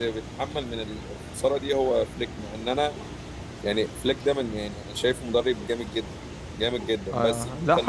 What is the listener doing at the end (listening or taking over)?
taking over